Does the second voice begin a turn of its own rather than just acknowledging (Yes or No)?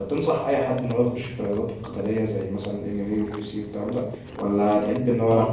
No